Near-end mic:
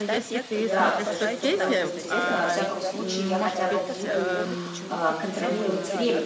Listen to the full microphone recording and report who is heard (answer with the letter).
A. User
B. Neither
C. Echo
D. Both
D